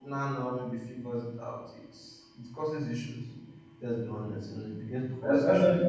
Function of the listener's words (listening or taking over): taking over